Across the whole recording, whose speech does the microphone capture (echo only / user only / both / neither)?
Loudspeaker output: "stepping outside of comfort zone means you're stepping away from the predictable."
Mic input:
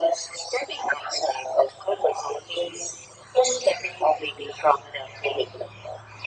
echo only